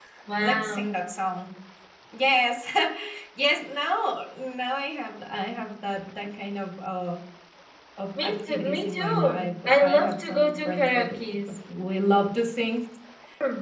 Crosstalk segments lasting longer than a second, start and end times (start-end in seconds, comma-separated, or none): 8.2-11.1